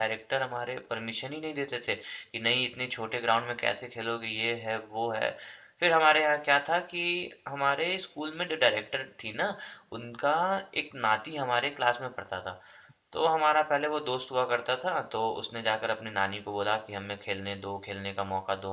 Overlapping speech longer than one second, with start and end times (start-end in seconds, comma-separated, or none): none